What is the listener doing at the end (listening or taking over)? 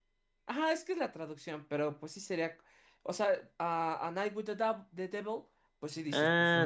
taking over